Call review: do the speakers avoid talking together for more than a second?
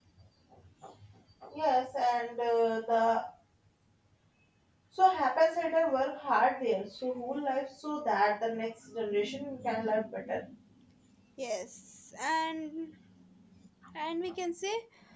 Yes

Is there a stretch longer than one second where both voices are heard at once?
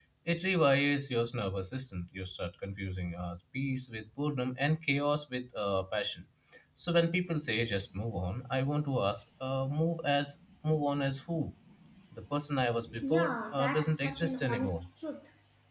Yes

